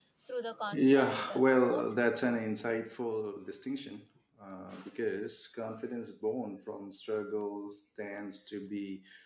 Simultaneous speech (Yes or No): Yes